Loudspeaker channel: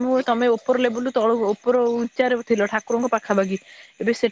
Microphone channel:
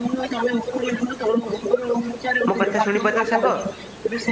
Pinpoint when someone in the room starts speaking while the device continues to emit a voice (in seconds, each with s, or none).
2.5 s